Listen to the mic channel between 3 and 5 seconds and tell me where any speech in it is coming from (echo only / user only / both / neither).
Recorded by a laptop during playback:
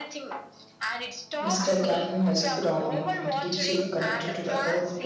both